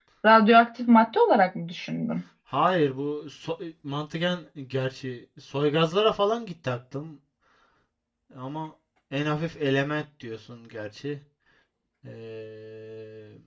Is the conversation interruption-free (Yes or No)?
Yes